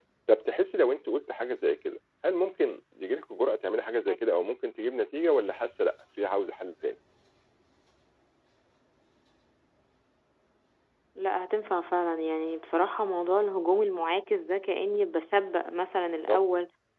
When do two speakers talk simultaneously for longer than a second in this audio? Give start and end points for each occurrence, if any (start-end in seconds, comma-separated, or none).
none